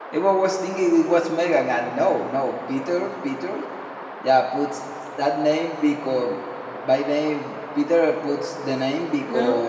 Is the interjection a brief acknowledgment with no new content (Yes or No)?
Yes